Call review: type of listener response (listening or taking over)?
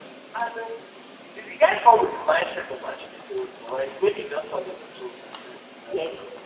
taking over